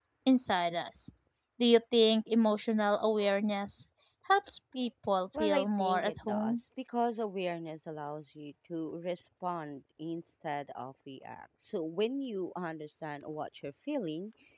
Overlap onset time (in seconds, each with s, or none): 5.3 s